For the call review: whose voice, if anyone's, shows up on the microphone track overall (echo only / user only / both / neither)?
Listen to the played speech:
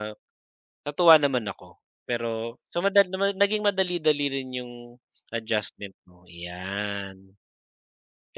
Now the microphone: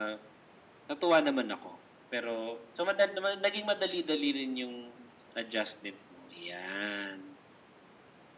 echo only